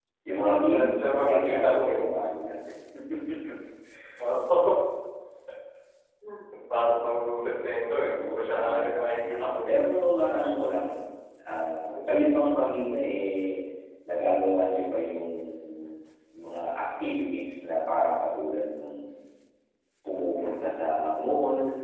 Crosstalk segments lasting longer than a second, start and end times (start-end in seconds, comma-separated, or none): 0.6-2.0, 8.1-9.8